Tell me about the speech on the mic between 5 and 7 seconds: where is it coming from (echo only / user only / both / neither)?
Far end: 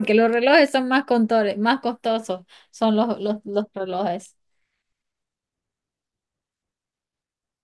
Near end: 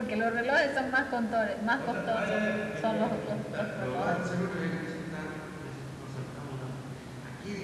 user only